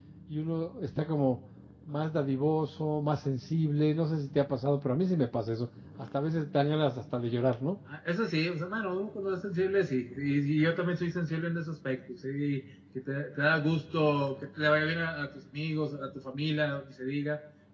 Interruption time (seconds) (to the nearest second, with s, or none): none